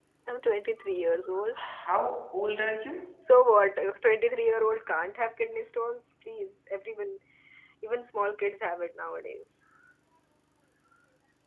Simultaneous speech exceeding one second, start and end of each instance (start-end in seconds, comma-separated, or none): none